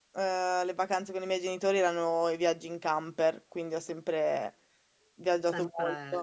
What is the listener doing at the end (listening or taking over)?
listening